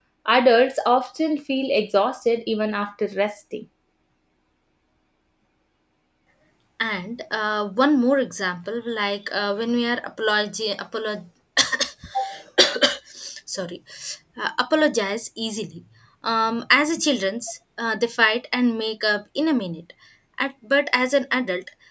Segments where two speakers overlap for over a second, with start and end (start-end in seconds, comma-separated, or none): none